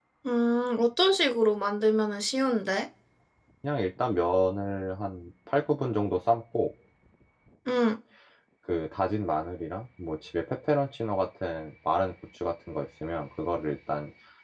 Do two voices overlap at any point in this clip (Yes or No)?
No